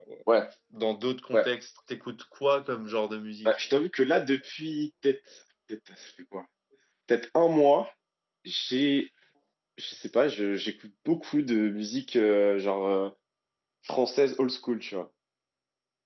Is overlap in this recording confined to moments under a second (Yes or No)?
Yes